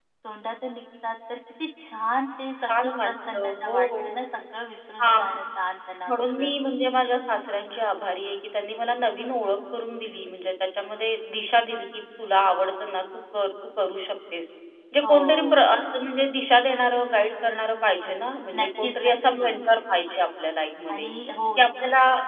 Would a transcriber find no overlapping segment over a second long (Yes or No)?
No